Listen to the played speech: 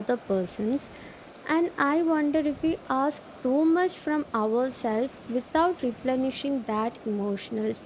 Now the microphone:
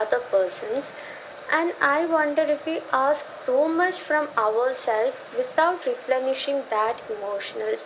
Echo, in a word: present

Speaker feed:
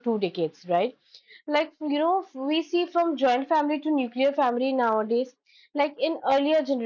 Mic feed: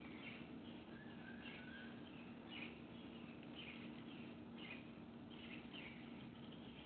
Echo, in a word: none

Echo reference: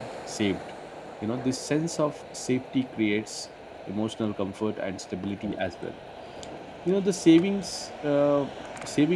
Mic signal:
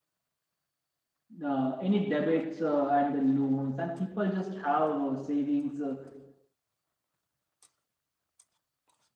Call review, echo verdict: none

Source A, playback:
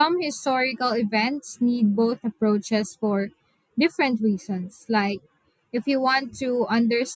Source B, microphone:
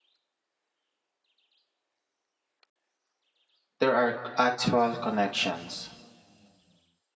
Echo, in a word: none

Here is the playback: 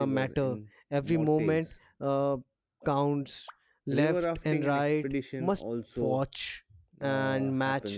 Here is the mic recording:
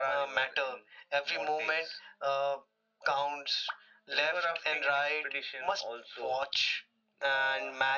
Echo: present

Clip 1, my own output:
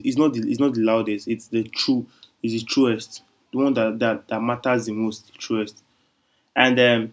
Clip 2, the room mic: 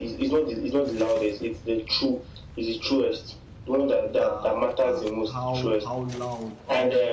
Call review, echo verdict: present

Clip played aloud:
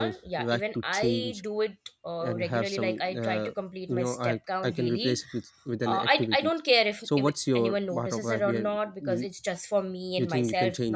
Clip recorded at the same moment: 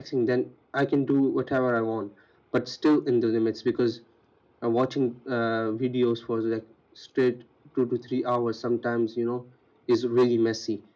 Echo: none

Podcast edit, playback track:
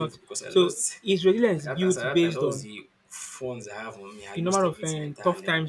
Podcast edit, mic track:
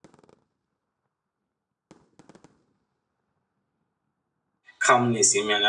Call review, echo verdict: none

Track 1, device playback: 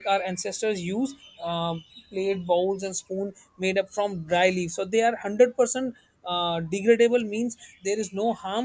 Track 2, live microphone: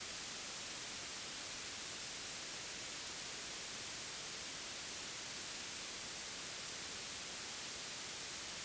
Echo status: none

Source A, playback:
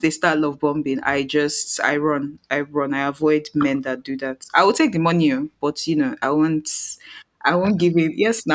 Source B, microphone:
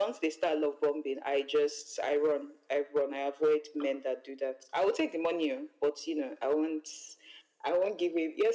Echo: present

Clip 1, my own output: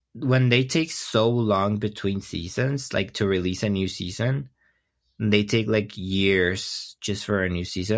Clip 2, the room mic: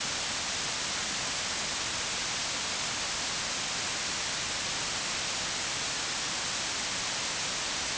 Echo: none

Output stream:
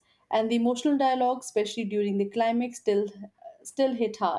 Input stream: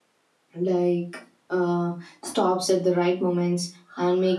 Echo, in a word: none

